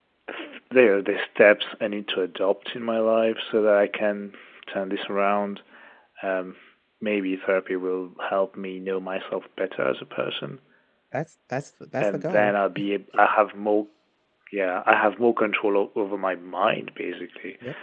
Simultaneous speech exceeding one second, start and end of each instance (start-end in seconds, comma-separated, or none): none